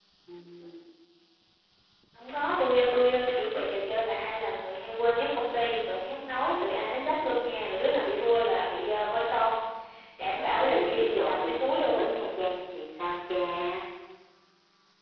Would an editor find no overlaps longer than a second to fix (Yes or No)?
No